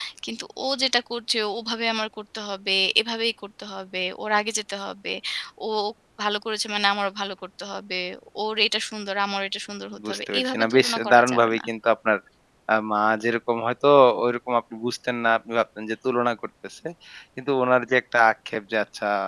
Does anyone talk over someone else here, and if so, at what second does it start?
9.9 s

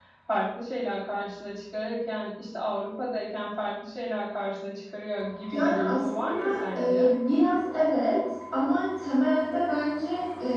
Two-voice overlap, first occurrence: 5.5 s

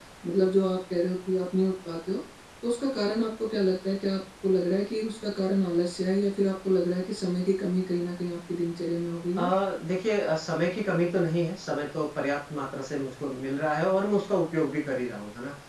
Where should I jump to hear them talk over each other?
none

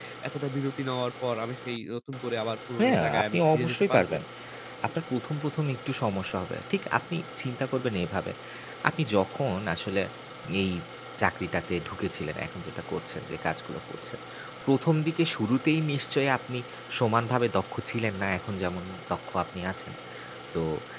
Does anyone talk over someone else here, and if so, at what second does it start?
2.8 s

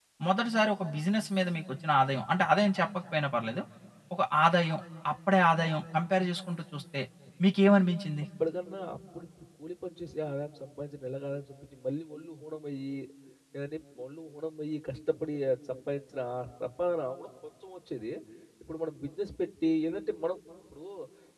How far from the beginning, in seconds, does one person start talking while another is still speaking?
none

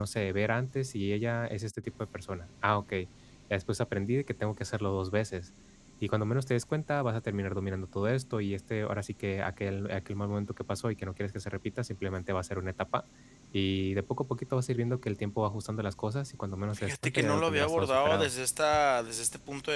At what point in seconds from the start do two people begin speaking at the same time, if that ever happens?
16.7 s

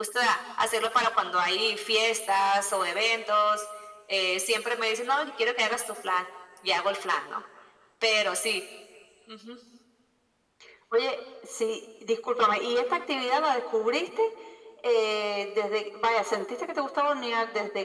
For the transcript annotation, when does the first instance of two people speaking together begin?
none

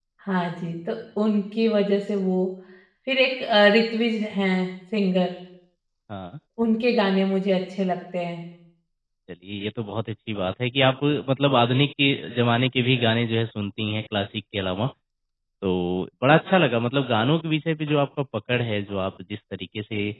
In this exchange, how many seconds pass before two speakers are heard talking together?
none

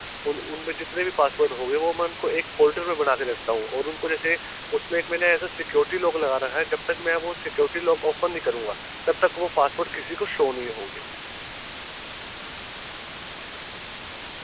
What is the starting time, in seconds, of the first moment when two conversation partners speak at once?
none

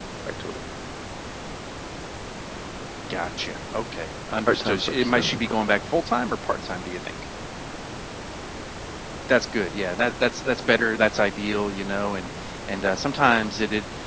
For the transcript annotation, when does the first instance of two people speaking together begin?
4.5 s

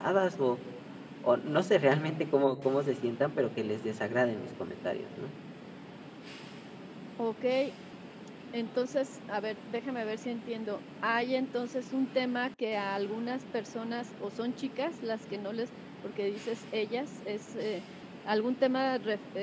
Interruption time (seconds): none

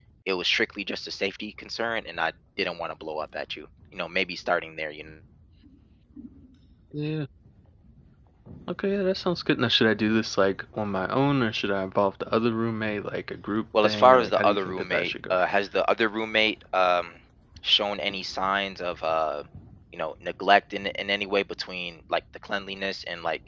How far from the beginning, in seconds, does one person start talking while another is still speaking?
13.7 s

